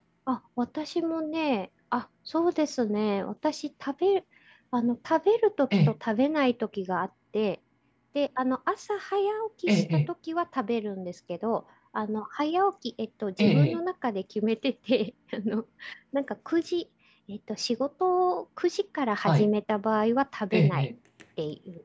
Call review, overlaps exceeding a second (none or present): none